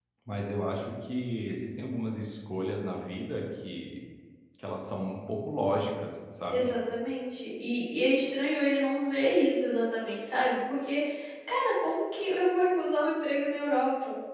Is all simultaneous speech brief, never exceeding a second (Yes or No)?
Yes